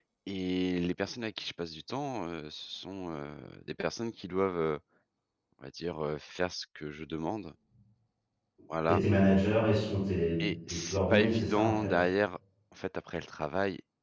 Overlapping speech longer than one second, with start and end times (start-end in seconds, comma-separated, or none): 10.7-11.9